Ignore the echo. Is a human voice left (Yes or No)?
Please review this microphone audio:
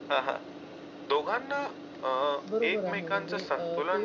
Yes